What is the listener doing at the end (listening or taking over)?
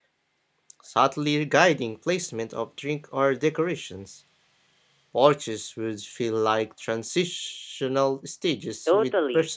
taking over